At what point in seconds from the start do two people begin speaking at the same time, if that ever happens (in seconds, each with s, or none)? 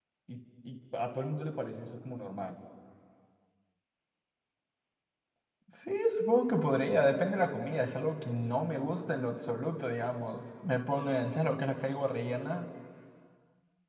none